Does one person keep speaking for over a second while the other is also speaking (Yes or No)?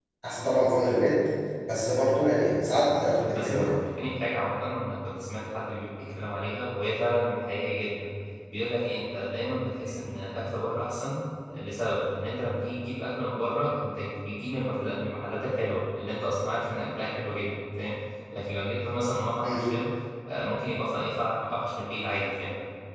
No